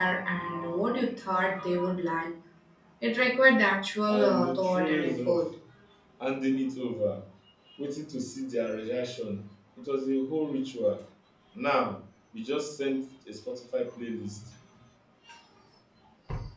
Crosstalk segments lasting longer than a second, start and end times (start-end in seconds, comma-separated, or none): 4.1-5.4